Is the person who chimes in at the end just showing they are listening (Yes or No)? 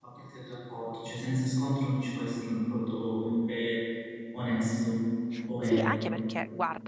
No